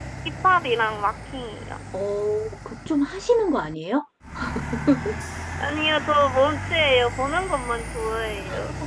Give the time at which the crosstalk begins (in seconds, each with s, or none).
none